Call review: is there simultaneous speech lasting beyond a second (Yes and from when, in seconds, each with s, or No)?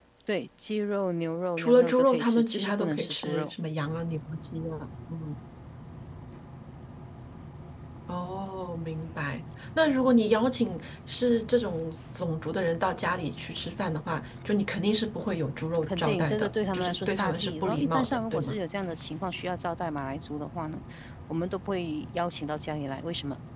Yes, from 1.6 s